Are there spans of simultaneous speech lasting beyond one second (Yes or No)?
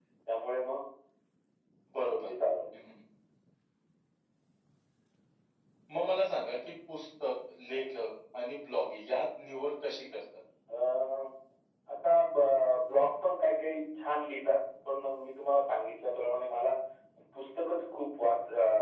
No